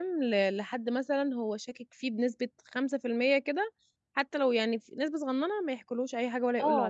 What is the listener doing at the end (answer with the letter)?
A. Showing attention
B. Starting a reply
B